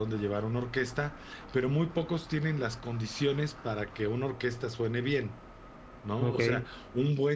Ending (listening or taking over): listening